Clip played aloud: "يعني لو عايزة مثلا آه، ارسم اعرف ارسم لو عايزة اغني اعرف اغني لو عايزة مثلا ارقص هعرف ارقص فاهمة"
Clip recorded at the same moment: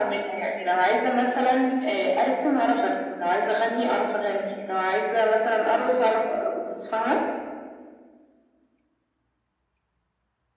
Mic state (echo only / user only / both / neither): echo only